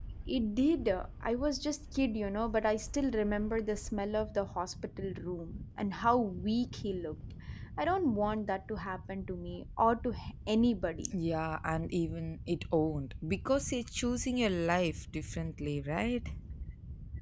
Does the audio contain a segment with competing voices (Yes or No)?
No